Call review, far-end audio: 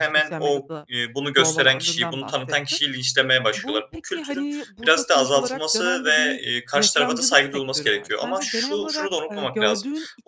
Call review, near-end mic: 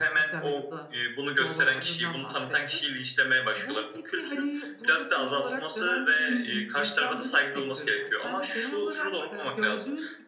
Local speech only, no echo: Hı hı.

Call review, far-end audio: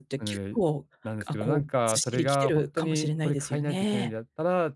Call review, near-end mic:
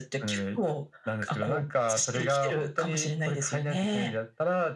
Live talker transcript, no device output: none

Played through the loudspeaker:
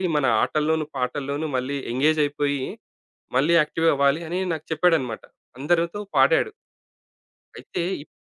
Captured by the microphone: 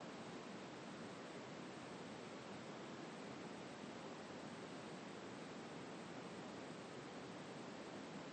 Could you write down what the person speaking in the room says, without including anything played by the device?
none

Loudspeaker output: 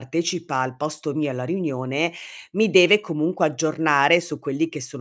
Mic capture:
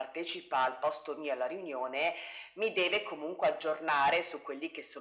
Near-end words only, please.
none

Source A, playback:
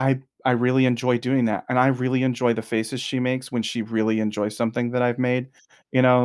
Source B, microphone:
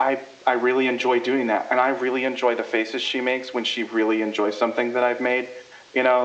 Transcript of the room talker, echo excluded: none

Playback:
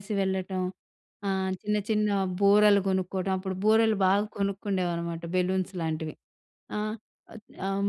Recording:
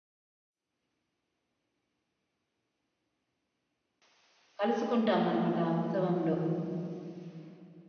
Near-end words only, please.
కలుసుకుంటామనమాట ఆ ఉత్సవంలో.

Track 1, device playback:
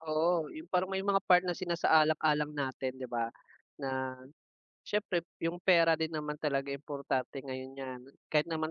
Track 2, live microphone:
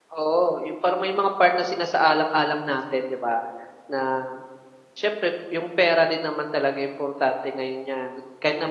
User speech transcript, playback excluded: none

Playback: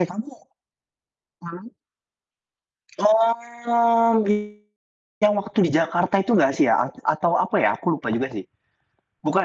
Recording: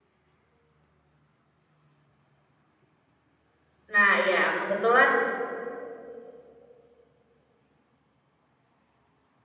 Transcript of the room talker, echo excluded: Nah iya, kebetulan

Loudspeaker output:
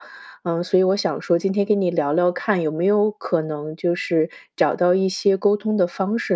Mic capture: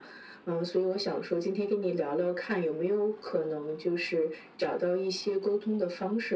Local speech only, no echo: none

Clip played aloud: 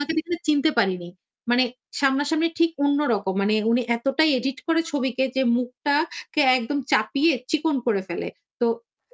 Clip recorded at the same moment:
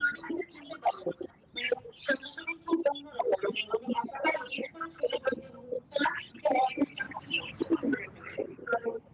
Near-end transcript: none

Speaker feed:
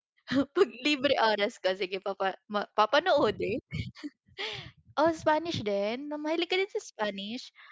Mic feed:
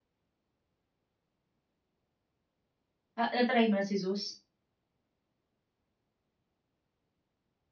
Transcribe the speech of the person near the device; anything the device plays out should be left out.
A na-try mo na si "Zeus?"

